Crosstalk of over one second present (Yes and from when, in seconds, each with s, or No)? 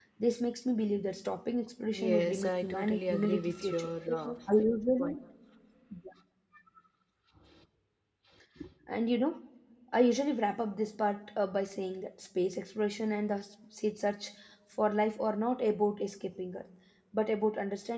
Yes, from 1.9 s